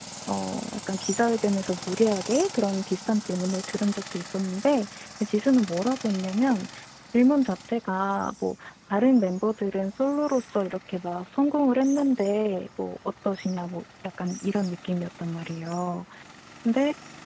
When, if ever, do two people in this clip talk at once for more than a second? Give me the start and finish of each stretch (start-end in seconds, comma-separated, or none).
none